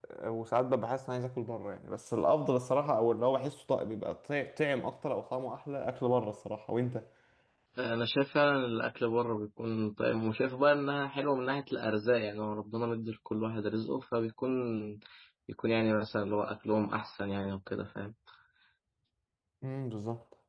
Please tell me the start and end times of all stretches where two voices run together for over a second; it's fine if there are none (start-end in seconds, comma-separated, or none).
none